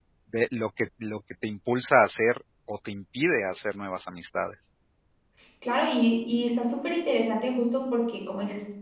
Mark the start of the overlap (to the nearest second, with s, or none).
none